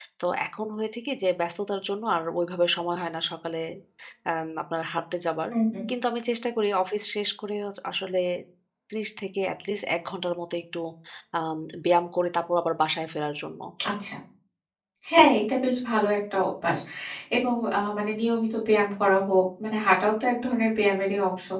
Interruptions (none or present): none